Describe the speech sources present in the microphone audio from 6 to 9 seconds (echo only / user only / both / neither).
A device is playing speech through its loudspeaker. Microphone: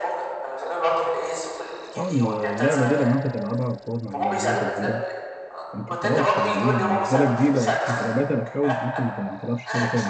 both